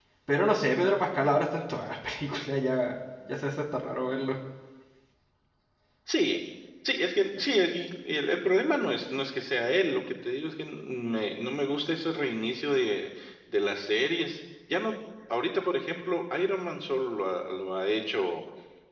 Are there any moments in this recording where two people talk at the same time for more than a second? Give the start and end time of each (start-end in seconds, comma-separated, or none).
none